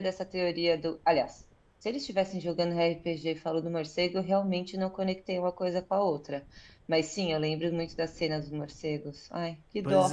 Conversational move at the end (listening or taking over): taking over